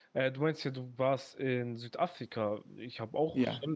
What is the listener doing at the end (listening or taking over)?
listening